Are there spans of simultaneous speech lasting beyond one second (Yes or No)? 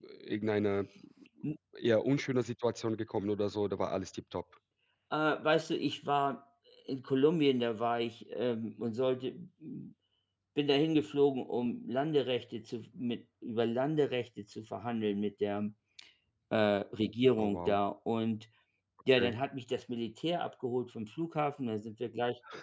No